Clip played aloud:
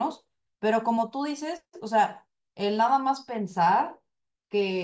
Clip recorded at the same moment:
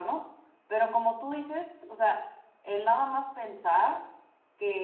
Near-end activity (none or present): none